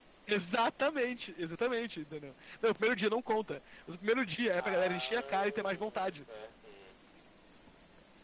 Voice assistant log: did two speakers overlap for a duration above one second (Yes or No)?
Yes